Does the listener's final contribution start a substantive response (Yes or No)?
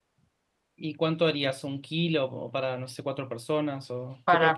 Yes